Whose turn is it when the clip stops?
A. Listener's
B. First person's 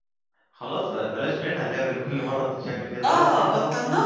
A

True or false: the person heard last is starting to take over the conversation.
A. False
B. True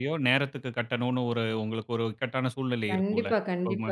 B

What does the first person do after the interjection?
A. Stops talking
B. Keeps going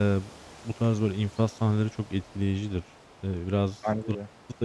B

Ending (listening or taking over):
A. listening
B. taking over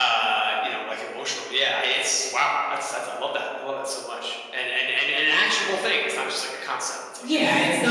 B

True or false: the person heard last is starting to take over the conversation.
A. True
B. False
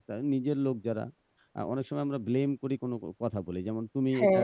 B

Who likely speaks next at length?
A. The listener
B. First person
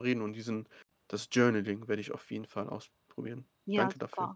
A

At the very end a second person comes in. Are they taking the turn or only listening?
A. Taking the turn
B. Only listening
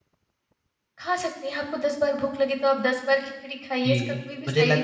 A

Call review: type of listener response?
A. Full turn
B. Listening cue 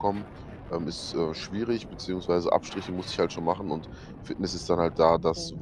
B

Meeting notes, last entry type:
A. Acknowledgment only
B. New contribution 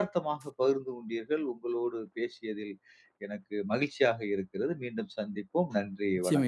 B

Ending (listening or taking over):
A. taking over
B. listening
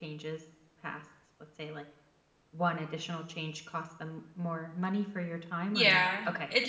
A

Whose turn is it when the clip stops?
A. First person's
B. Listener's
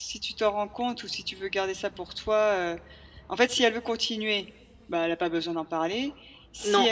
A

